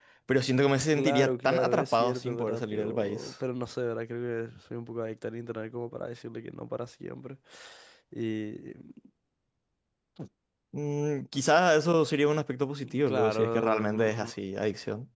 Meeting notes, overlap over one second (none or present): present